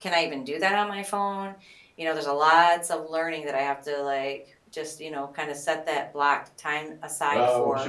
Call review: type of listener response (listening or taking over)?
taking over